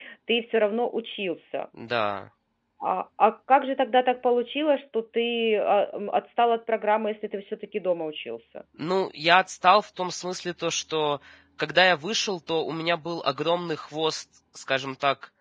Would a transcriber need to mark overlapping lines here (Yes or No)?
No